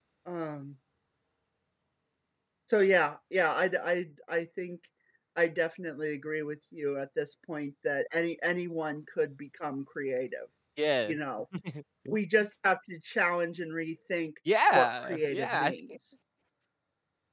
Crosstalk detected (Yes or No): Yes